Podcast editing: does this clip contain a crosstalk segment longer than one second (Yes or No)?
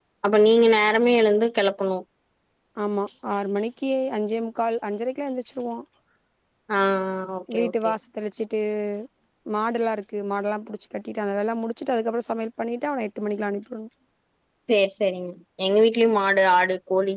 No